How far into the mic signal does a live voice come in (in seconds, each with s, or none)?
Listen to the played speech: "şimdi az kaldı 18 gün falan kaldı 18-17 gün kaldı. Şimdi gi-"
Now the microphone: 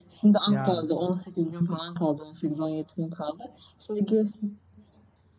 0.5 s